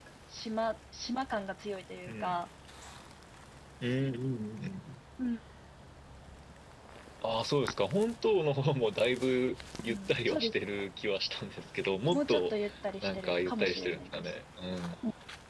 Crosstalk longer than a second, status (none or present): present